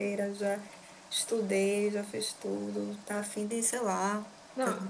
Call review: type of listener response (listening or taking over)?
taking over